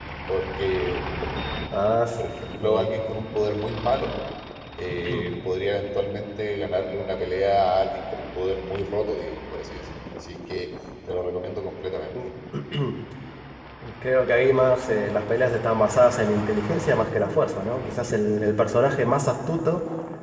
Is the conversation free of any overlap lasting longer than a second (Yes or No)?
Yes